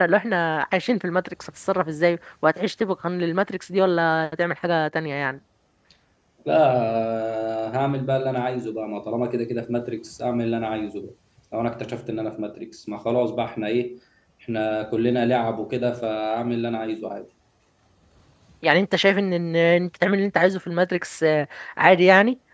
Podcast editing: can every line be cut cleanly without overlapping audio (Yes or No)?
Yes